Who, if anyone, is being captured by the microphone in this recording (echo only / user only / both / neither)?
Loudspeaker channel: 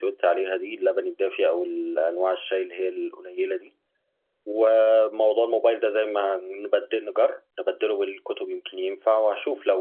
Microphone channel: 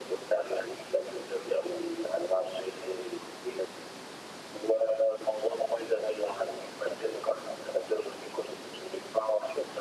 echo only